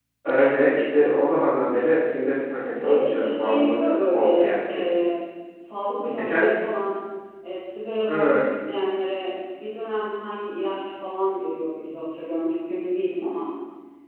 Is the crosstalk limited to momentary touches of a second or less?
No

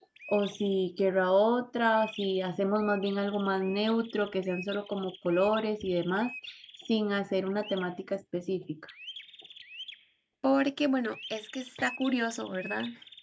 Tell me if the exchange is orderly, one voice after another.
Yes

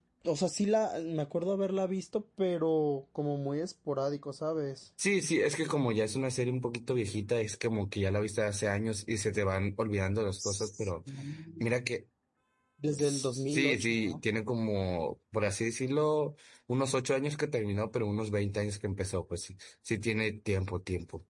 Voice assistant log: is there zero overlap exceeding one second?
No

